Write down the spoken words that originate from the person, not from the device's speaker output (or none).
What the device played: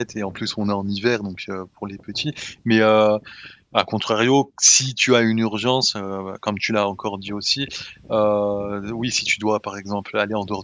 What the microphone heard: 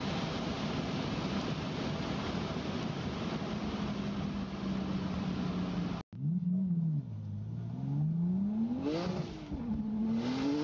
none